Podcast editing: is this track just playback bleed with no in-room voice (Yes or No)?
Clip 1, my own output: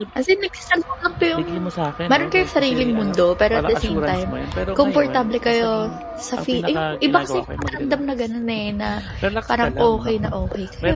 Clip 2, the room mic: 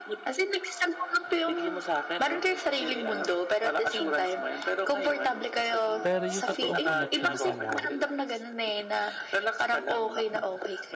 No